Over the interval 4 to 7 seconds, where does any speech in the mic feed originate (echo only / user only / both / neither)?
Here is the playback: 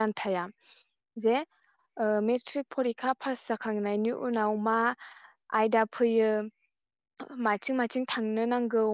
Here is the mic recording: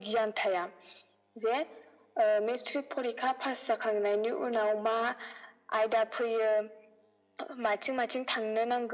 echo only